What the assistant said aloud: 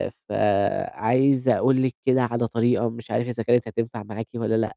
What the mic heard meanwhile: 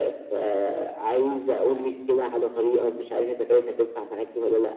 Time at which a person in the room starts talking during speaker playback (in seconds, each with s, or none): none